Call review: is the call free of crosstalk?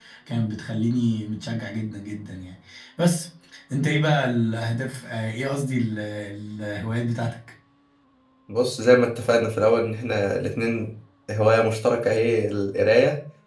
Yes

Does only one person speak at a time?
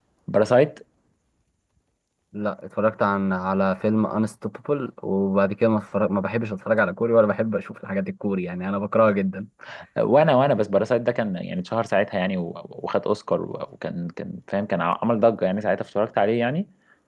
Yes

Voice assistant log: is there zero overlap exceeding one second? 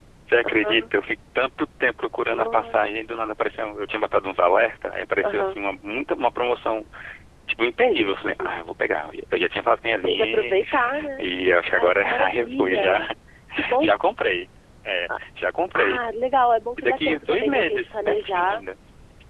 No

